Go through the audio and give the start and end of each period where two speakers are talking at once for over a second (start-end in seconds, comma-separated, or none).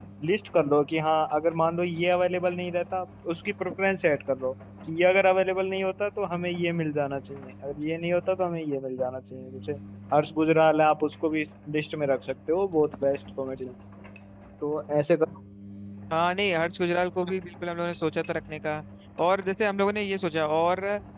none